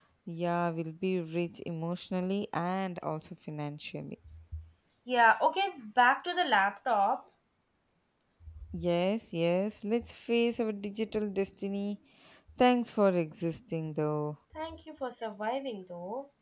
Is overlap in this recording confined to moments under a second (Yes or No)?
Yes